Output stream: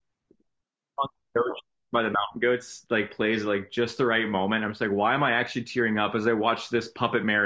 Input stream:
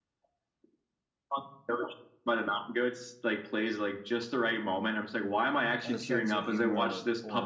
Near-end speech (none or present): present